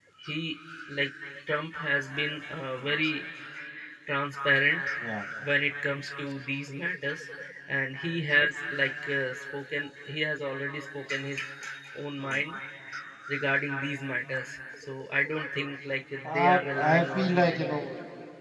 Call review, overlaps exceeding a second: present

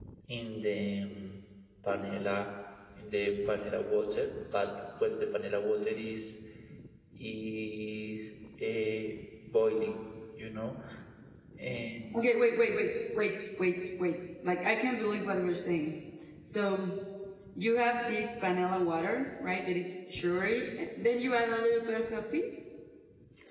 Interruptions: none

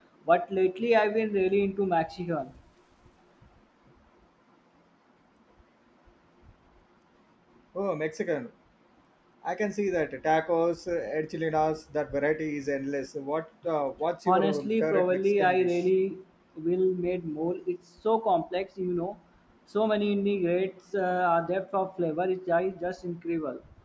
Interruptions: present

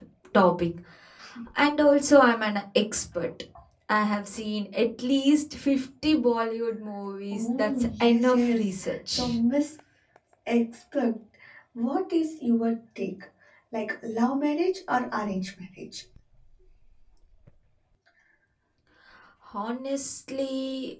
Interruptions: present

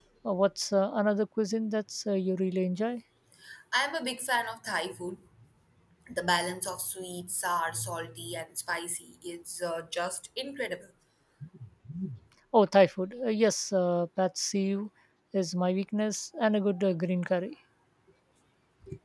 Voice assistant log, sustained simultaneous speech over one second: none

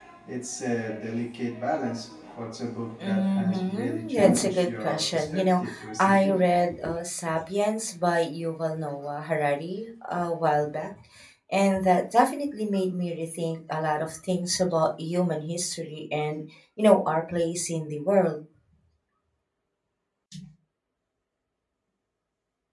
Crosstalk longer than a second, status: present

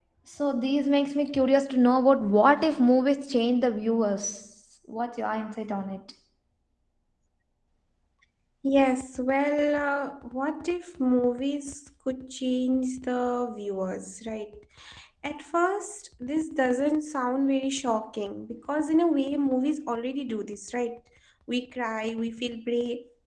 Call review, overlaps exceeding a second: none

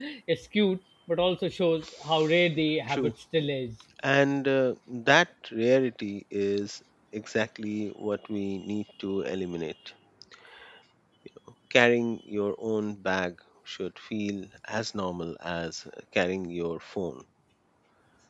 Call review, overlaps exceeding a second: none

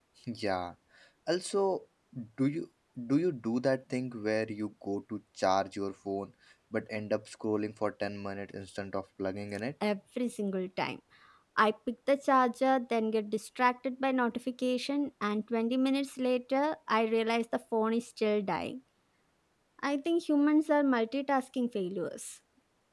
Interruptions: none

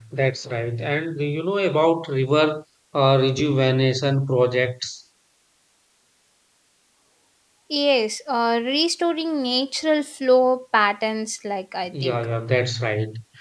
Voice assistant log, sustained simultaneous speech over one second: none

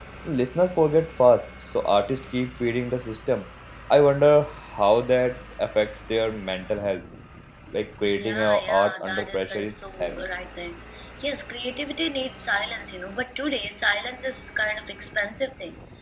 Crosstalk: present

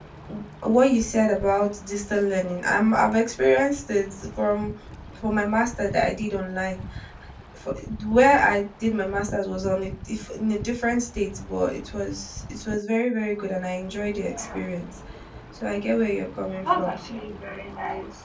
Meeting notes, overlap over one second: none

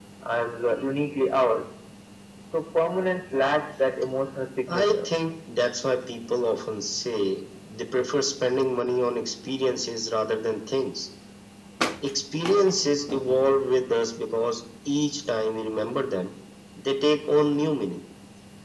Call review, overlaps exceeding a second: none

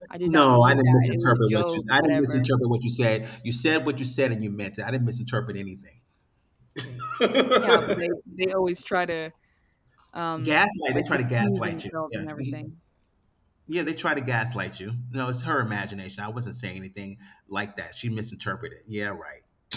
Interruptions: present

